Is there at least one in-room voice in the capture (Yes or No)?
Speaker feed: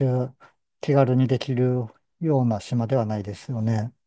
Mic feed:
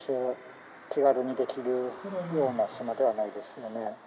Yes